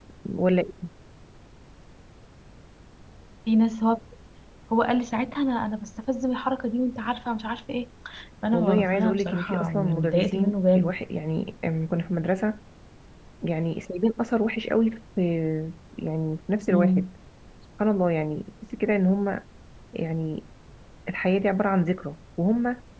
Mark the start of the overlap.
8.5 s

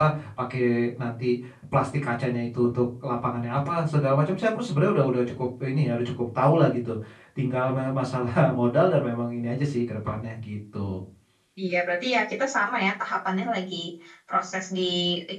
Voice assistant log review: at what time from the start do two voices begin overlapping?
none

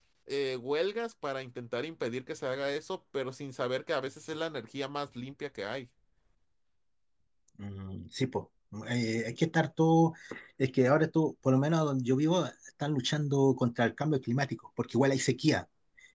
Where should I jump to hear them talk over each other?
none

